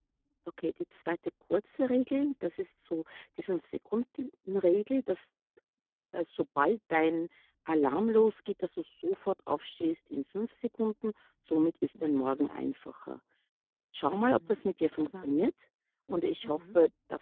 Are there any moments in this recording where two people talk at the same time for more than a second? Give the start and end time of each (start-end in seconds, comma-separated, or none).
14.1-15.4